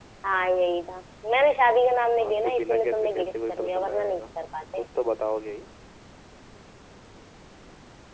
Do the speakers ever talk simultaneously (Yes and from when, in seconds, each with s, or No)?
Yes, from 2.2 s